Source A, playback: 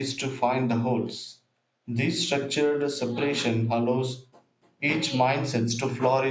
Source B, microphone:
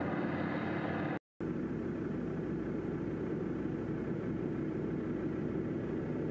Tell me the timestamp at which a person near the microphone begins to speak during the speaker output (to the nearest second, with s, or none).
none